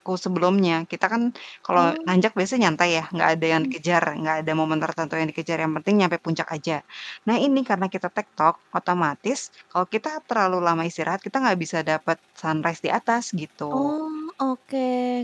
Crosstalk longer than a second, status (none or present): none